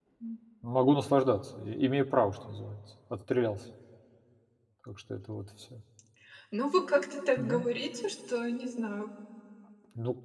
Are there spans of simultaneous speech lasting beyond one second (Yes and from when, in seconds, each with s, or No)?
No